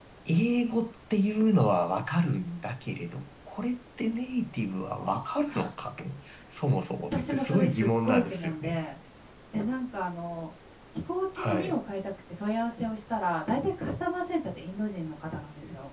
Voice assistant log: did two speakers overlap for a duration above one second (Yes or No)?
Yes